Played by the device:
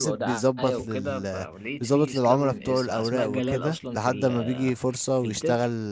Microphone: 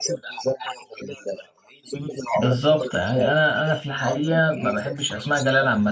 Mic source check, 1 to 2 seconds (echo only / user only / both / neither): echo only